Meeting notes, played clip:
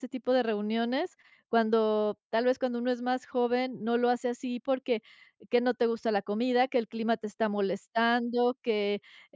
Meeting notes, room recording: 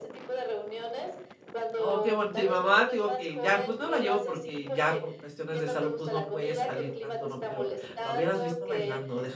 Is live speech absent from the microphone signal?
No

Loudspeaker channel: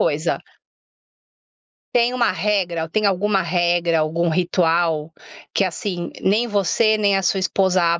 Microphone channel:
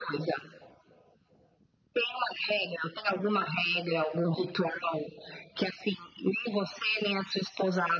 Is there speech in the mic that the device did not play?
No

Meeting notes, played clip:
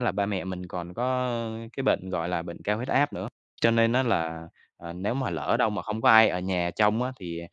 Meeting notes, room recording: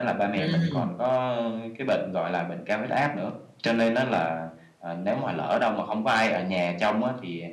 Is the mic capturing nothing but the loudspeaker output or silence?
No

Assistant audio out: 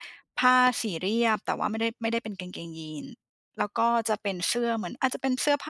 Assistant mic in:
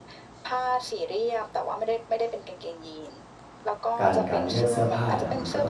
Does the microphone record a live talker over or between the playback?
Yes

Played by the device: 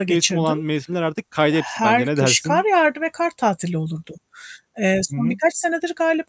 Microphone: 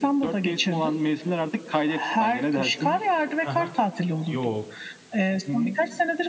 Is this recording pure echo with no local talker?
No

